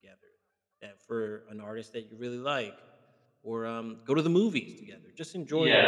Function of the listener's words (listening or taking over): taking over